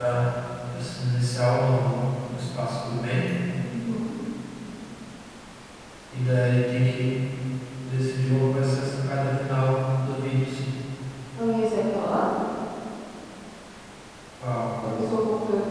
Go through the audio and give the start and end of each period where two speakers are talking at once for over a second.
none

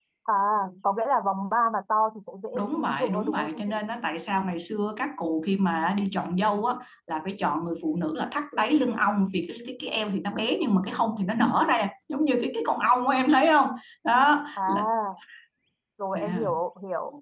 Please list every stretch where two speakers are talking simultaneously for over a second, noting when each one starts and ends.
2.5-3.8

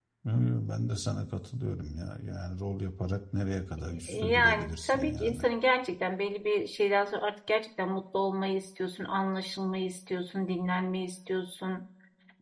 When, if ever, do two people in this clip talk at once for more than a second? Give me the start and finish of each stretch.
4.1-5.4

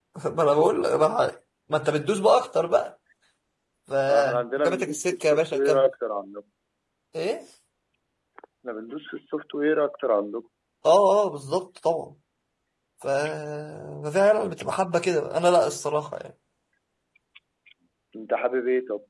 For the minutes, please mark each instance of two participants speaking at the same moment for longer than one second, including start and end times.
4.1-5.9

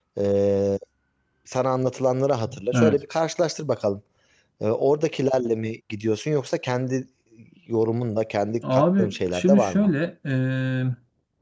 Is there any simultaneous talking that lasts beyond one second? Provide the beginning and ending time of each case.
8.7-9.9

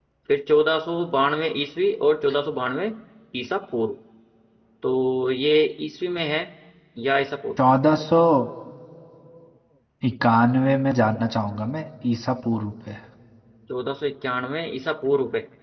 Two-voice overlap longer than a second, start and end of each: none

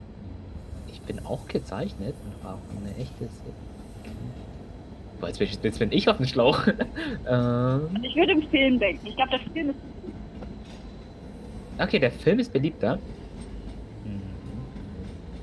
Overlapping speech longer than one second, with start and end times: none

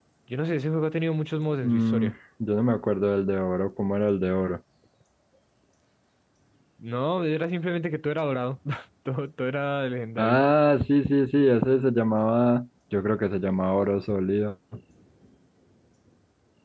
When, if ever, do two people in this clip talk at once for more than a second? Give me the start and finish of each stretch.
none

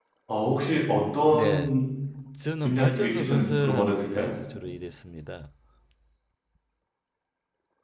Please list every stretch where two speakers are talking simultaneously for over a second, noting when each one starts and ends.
2.6-4.4

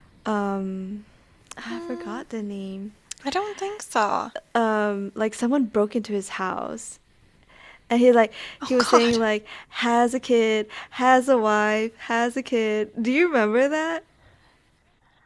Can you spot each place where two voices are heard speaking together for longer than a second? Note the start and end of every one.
none

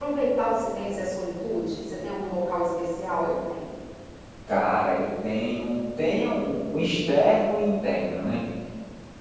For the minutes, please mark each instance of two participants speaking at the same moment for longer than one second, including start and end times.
none

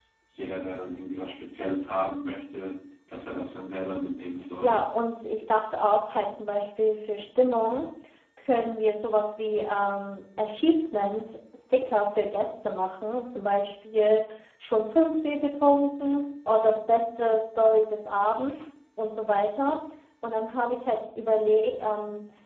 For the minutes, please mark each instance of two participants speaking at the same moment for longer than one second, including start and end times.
none

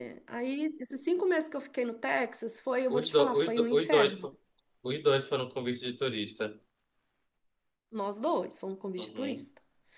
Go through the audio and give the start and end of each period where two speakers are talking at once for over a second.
2.9-4.3

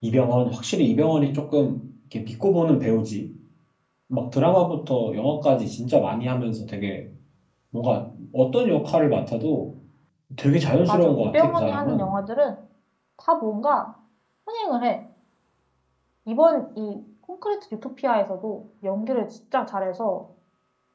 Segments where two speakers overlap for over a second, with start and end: 10.9-12.1

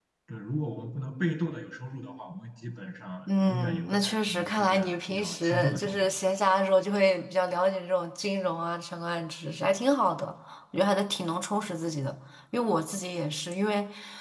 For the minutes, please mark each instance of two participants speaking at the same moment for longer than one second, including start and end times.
3.4-6.2

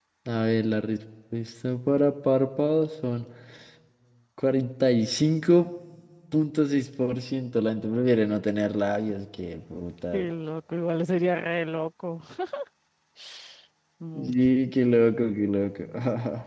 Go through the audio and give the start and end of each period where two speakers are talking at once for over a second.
none

